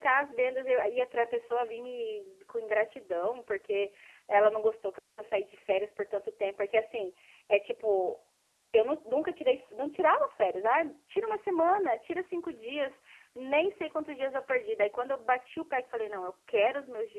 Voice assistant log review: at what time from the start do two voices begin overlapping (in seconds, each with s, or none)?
none